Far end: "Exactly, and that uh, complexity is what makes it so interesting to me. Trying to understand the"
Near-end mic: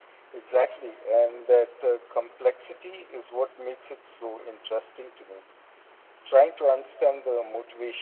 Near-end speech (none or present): none